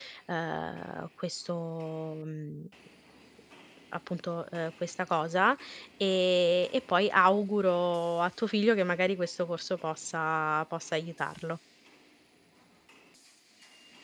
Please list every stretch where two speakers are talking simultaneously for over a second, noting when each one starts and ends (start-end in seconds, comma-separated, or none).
none